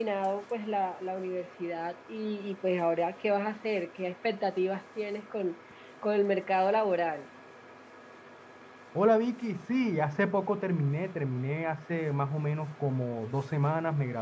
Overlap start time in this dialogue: none

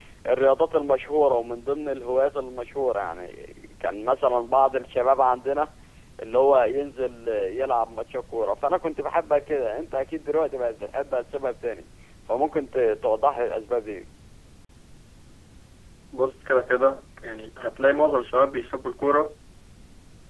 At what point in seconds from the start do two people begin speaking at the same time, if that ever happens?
none

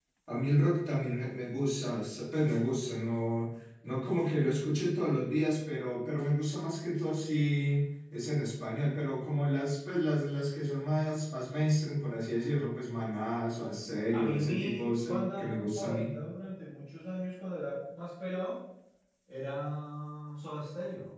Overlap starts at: 14.1 s

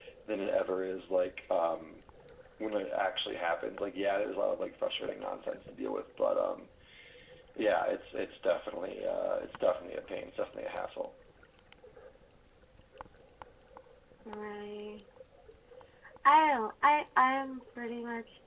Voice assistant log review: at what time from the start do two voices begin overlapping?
none

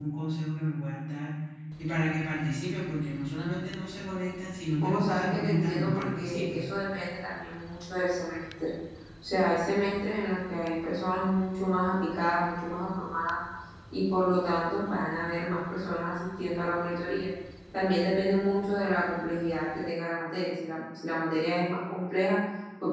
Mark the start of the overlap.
4.8 s

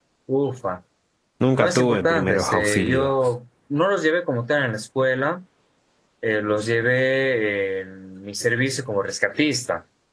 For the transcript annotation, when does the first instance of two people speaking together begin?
1.6 s

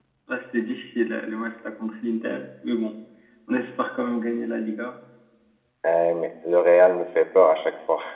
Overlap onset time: none

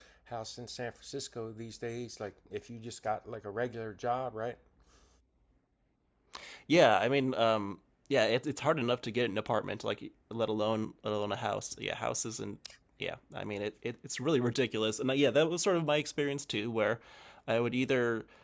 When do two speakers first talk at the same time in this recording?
none

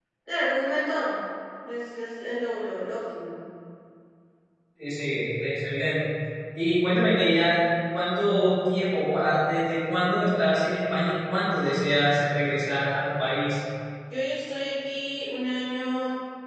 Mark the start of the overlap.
none

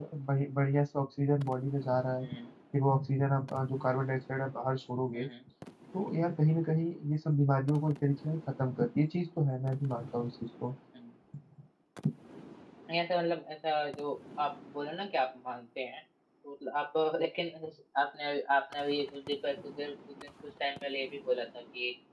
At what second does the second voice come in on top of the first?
none

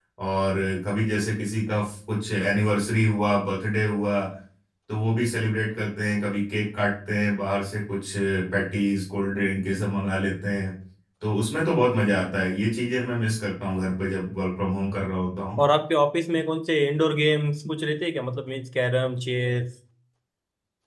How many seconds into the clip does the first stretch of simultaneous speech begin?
none

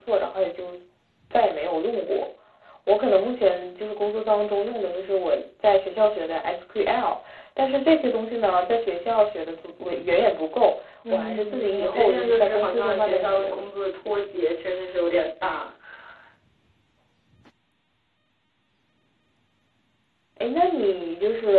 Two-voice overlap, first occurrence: 11.0 s

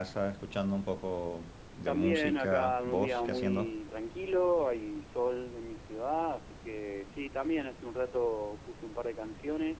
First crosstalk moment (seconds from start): 1.9 s

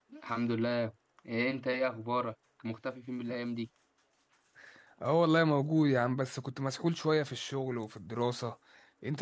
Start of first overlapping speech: none

